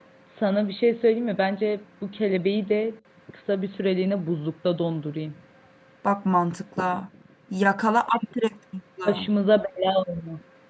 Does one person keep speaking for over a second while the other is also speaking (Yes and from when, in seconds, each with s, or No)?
No